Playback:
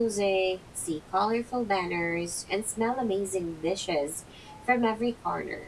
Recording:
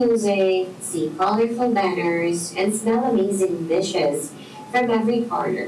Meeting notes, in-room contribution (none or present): none